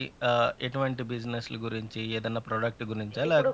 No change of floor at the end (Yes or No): No